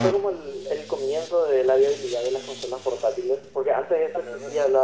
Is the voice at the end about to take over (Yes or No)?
No